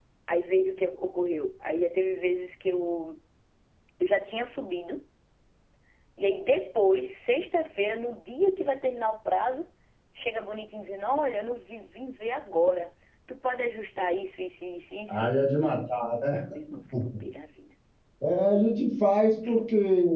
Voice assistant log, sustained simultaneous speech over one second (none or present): none